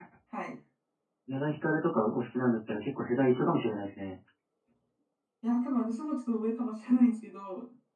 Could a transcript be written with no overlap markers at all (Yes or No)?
Yes